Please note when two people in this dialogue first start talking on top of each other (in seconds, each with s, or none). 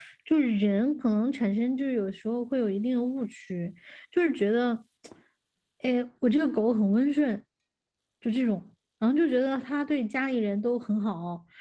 none